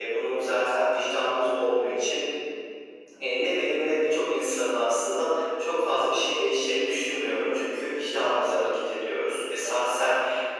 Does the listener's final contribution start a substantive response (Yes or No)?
No